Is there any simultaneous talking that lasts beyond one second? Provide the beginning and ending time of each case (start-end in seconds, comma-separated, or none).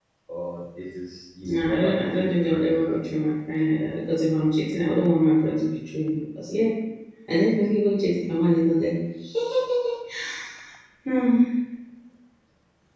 1.4-3.0